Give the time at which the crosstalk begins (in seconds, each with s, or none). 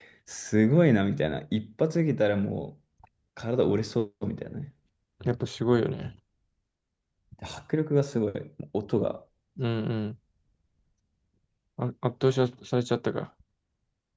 none